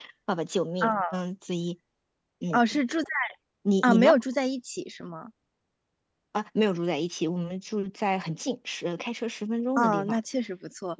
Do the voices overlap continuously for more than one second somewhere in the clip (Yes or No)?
No